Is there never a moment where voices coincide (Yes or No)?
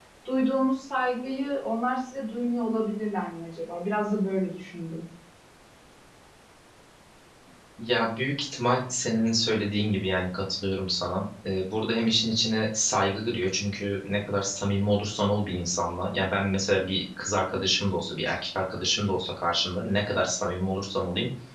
Yes